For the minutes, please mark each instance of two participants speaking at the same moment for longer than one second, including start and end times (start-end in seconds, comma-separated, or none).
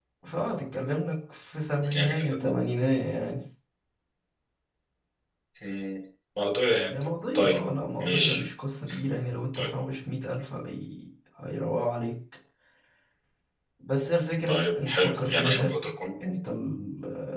14.5-15.7